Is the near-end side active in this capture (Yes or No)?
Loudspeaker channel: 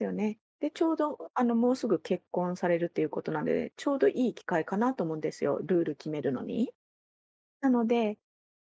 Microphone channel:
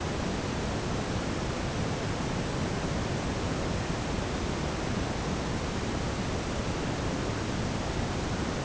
No